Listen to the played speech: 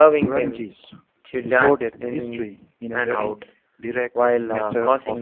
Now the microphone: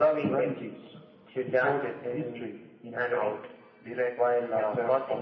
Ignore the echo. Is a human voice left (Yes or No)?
No